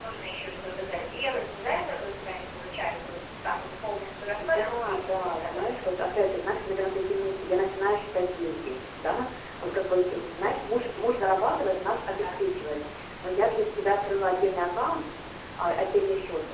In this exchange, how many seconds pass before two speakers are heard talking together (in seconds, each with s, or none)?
4.4 s